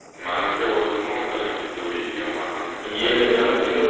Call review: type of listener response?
taking over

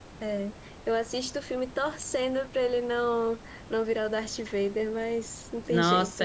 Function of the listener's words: taking over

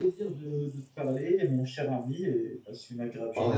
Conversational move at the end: taking over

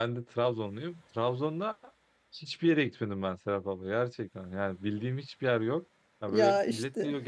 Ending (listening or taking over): listening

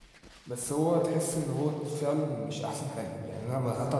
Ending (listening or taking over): listening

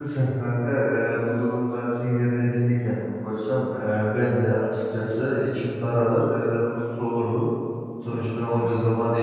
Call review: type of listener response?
listening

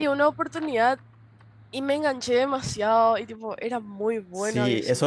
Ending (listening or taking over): taking over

